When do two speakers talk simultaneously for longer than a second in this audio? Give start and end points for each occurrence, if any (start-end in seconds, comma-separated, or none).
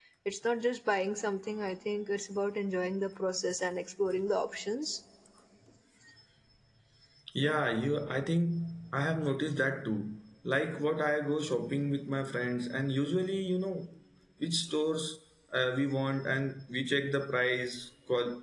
none